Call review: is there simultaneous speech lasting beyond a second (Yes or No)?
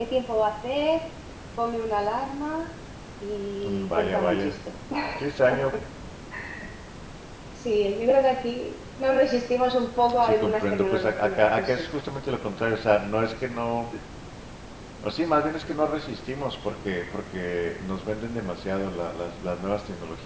Yes